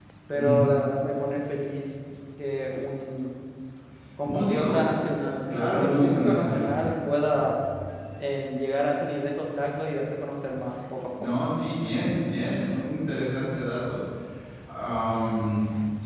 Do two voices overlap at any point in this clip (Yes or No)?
Yes